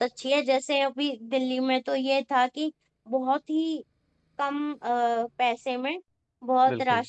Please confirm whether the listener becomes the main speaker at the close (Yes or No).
No